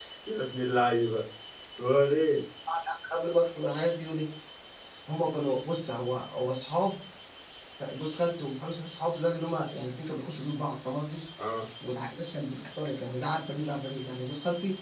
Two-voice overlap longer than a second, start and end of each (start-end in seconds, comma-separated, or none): none